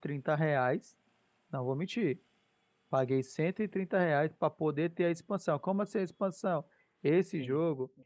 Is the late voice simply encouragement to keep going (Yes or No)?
Yes